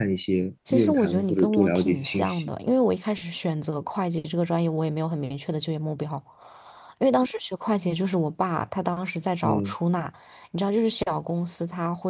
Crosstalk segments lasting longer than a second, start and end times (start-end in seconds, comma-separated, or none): 0.7-2.5